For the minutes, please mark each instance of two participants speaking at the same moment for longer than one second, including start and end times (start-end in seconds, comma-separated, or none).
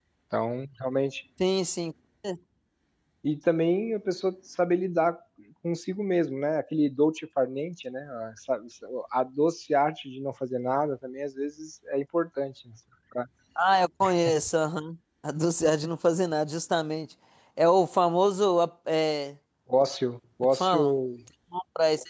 none